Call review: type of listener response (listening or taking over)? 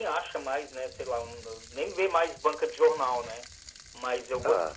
listening